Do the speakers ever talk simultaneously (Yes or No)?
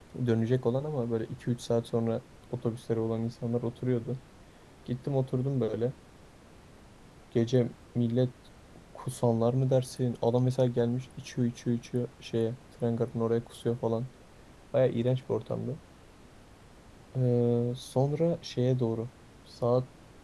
No